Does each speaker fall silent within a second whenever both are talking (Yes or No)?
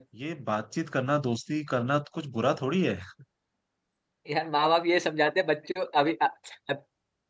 Yes